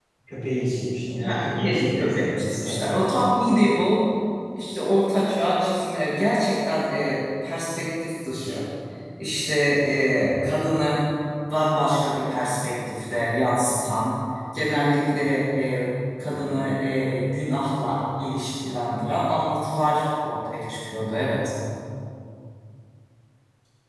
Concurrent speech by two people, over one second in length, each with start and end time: 1.2-2.9

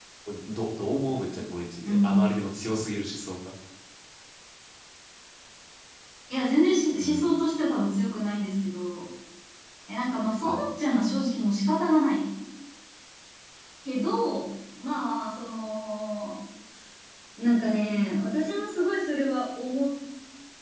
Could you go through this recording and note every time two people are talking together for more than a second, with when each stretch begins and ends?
none

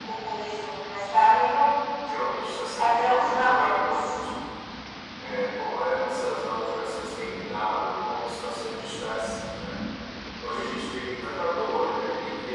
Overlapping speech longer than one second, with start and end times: 2.8-4.1

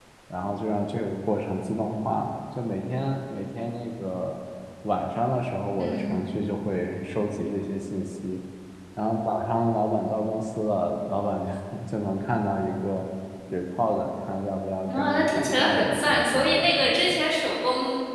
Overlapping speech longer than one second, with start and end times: 14.9-17.2

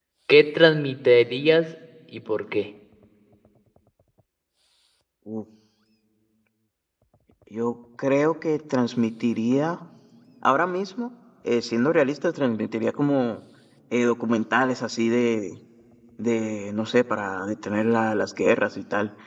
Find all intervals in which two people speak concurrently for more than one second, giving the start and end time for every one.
none

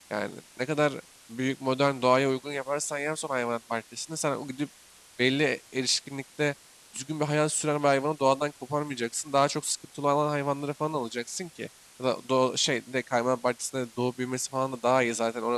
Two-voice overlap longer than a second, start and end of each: none

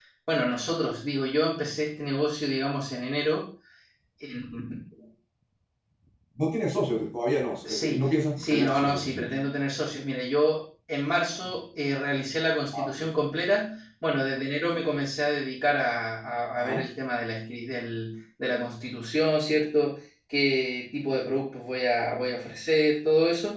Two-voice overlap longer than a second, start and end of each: 7.7-9.3

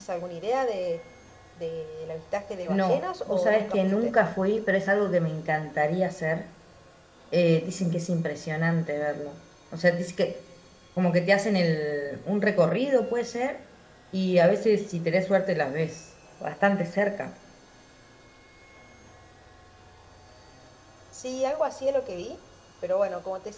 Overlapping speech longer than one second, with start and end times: 2.7-4.1

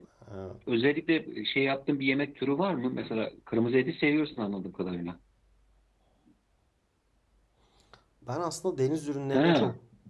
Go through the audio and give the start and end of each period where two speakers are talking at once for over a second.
none

